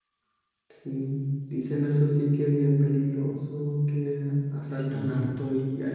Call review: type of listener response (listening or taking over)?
listening